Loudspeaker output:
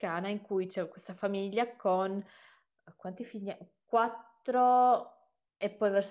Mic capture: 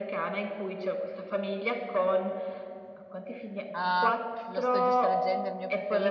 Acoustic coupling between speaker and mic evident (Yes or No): Yes